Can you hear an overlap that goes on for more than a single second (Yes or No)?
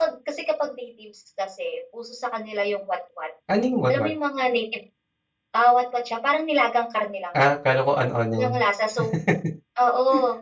No